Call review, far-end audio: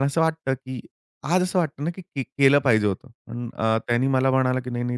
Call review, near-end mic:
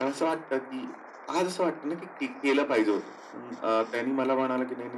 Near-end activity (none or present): none